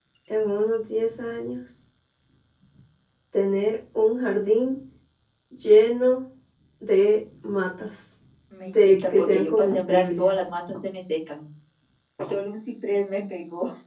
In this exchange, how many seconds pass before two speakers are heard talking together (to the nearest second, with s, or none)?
9 s